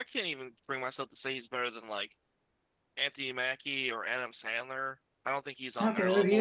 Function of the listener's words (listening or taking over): taking over